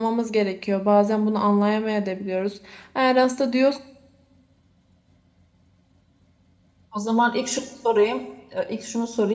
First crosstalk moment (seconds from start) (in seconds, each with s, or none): none